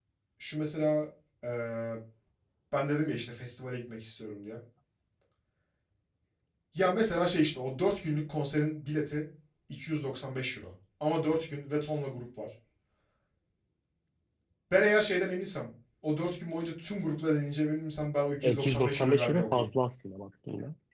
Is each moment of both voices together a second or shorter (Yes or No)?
No